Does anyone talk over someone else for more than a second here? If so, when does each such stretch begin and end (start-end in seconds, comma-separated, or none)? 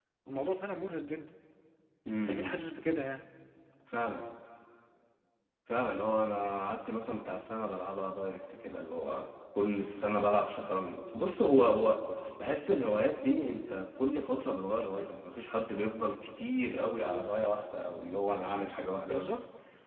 none